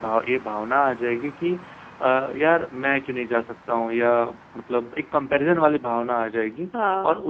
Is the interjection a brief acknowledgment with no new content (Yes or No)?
Yes